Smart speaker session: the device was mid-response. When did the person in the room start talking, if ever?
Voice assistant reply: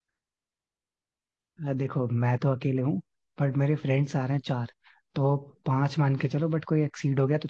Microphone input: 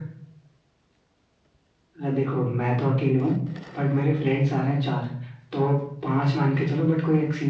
none

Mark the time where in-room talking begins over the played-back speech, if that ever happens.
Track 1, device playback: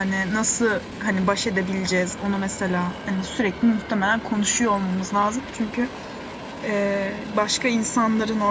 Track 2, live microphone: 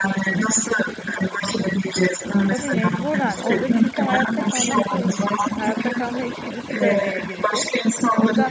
2.4 s

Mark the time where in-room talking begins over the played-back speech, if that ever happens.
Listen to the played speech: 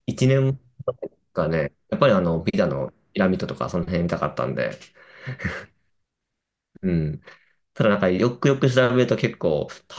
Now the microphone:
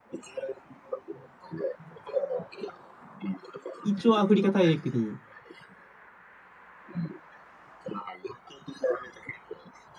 3.8 s

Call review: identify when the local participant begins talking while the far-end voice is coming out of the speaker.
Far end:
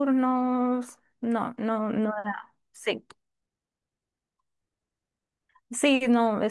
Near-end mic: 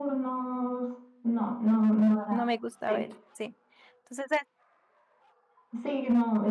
2.3 s

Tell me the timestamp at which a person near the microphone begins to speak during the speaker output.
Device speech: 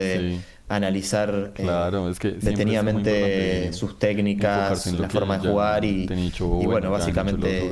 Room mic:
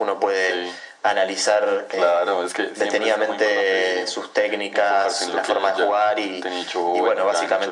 none

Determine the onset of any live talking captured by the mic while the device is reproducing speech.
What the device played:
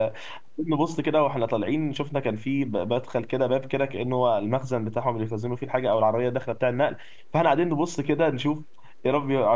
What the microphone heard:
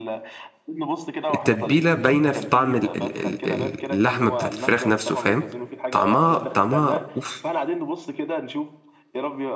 1.3 s

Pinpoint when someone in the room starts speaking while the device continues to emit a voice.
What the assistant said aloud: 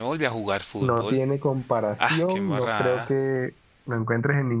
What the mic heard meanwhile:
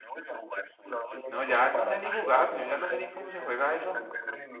1.3 s

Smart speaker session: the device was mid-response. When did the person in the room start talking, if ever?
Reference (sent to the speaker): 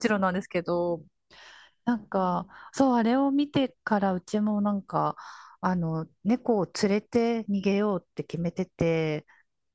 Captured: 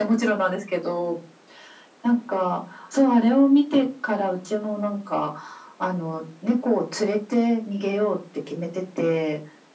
none

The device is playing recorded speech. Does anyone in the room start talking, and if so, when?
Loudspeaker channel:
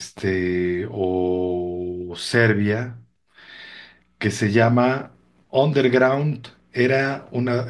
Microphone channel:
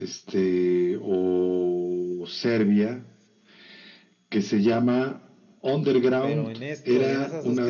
6.2 s

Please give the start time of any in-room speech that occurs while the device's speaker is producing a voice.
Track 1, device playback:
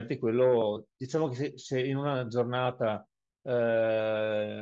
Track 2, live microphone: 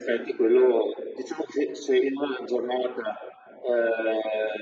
none

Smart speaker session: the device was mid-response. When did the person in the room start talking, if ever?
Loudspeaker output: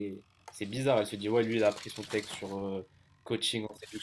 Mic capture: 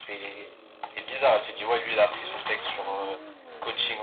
none

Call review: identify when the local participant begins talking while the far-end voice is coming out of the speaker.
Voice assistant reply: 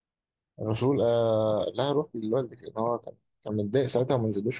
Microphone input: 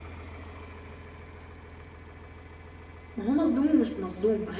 3.2 s

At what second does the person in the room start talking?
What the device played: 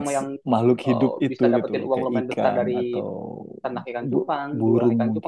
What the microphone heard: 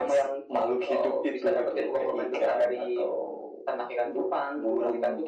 none

